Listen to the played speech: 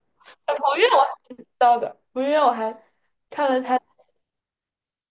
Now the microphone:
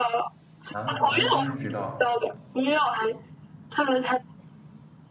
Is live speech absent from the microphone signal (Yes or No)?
No